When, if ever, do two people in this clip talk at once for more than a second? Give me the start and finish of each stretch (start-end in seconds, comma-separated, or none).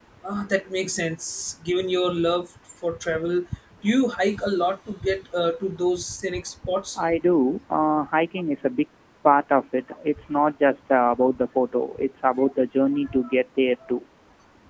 none